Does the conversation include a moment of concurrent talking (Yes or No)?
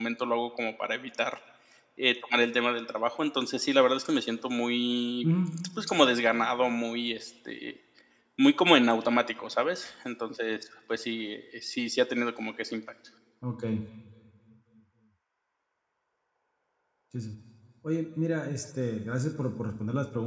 No